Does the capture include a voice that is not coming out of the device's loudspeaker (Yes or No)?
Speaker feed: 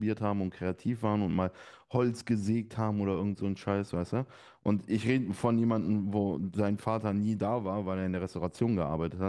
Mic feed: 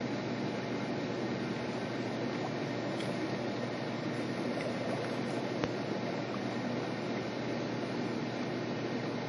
No